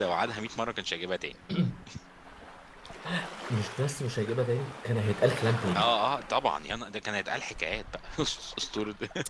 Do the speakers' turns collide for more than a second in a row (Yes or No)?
No